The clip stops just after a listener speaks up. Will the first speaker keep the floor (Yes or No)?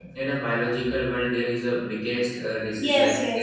No